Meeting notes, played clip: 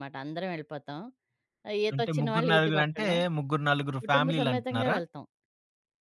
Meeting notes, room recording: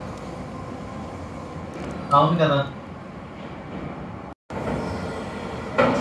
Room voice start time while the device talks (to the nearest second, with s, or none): 2 s